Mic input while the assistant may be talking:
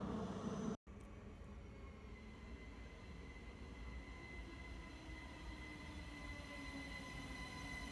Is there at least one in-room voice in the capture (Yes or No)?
No